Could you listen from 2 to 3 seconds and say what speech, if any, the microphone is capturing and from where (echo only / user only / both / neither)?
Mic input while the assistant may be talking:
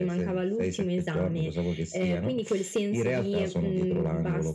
echo only